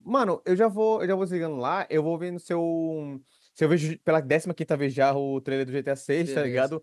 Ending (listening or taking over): listening